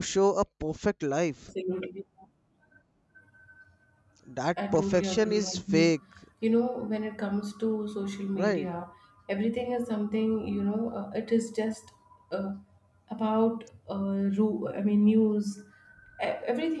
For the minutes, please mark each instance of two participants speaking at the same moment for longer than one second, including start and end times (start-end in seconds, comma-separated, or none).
4.7-5.9